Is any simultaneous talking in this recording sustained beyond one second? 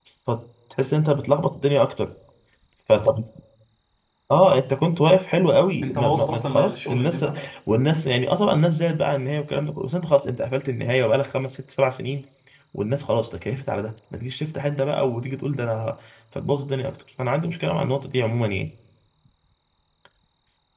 Yes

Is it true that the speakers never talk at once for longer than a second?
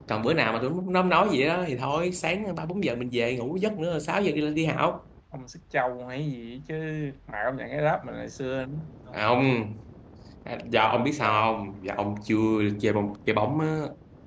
Yes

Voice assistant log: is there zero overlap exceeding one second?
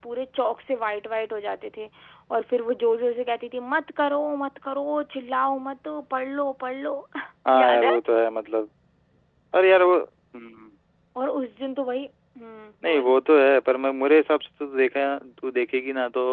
Yes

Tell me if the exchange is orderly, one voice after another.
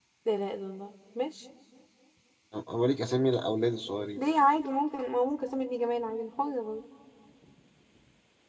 Yes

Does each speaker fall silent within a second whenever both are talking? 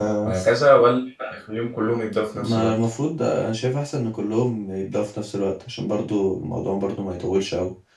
Yes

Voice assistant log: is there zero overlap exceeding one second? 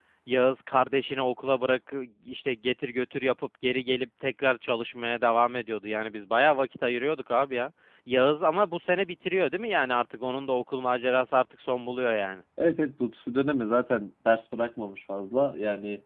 Yes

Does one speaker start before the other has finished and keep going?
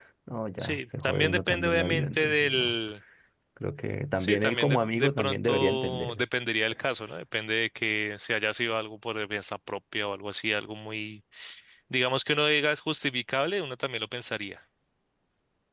Yes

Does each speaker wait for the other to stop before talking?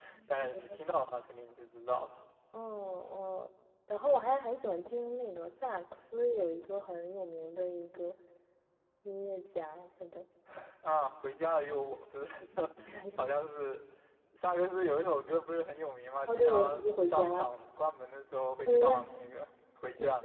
No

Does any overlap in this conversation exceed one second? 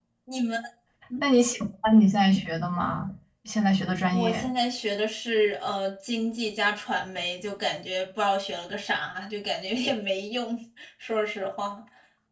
No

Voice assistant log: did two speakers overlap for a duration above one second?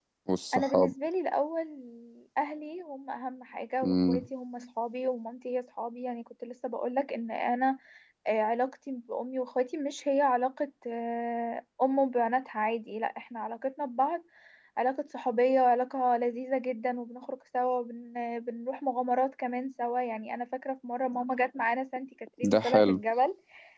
No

